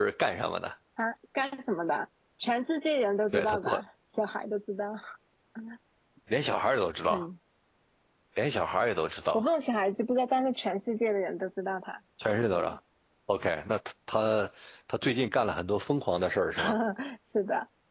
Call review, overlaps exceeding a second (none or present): none